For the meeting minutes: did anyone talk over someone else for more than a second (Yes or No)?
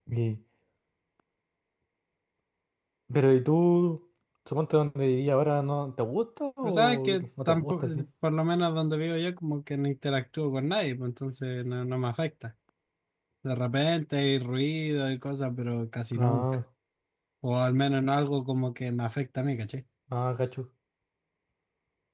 Yes